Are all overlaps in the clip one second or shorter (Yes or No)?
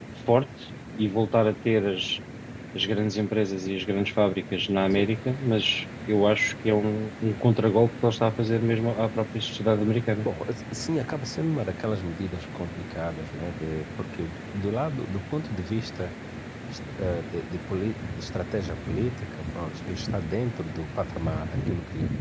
Yes